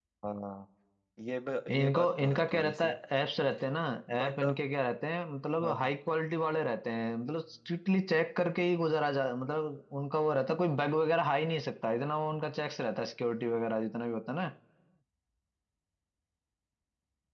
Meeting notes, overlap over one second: present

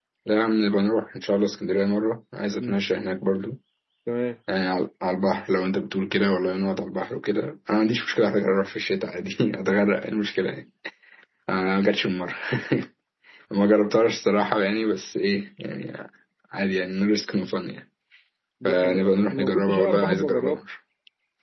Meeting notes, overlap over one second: present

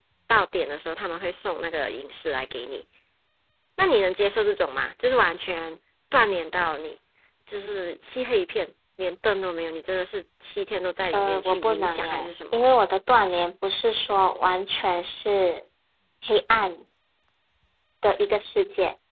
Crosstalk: present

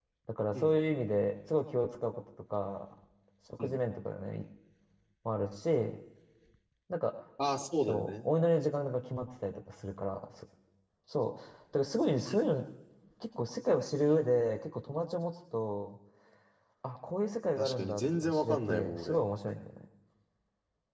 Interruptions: present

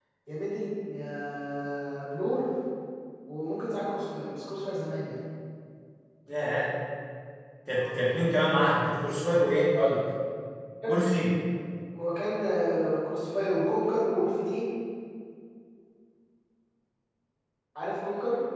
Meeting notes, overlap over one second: none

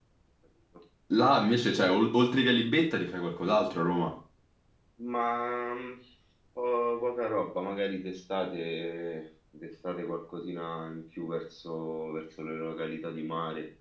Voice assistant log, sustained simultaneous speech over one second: none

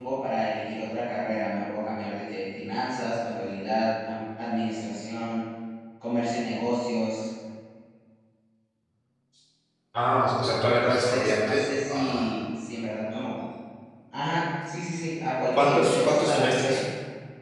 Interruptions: present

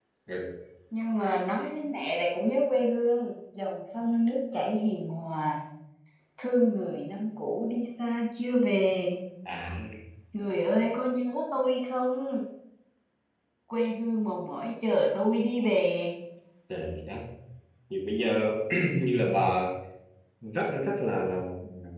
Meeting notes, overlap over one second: none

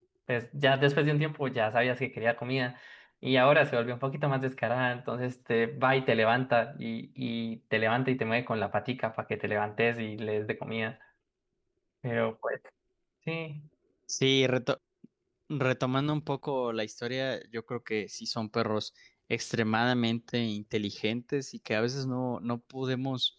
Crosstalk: none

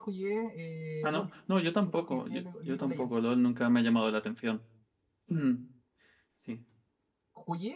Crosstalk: present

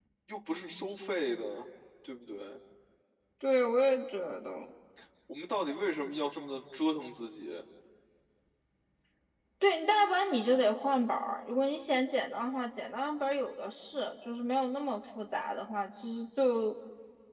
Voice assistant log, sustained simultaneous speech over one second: none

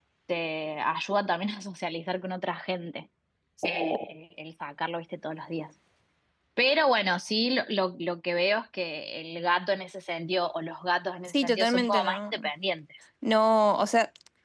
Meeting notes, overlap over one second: present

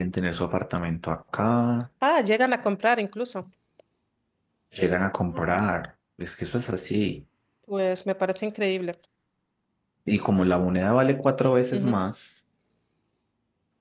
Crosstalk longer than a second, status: none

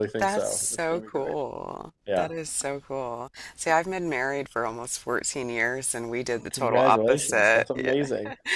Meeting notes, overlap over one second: present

